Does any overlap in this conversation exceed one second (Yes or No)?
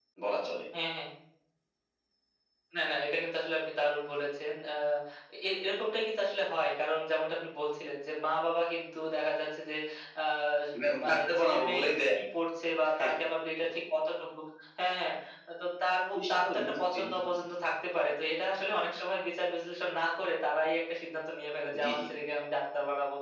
Yes